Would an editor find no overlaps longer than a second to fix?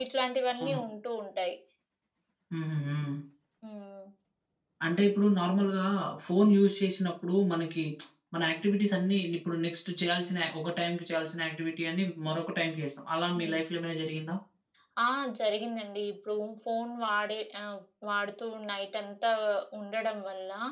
Yes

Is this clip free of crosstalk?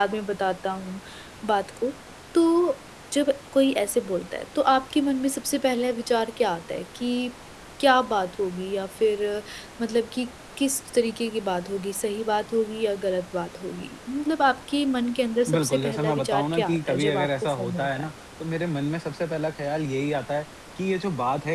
No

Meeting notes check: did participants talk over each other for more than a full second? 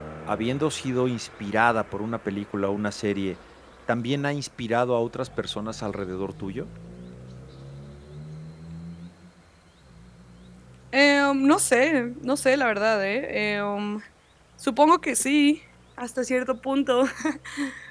No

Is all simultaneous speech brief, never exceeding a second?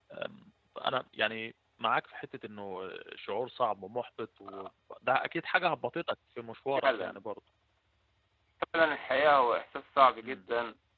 Yes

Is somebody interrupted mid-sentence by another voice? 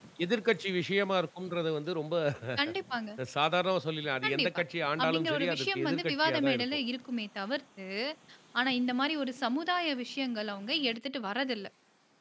Yes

